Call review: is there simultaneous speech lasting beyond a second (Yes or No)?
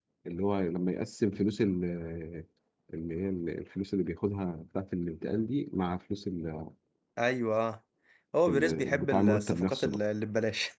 Yes